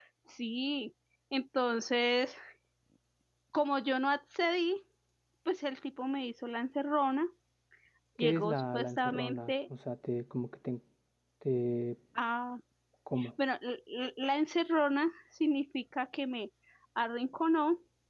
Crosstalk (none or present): present